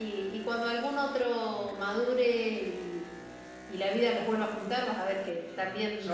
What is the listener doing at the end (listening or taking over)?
taking over